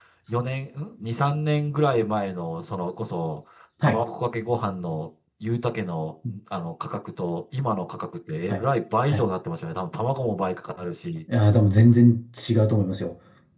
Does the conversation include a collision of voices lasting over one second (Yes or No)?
No